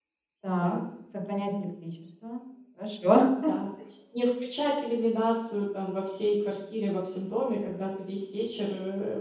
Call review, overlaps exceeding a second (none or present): none